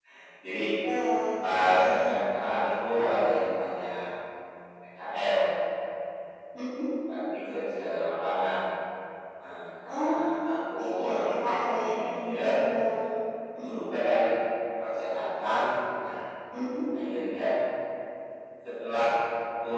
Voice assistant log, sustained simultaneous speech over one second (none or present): present